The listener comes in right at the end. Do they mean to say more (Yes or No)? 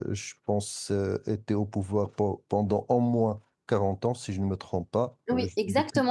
Yes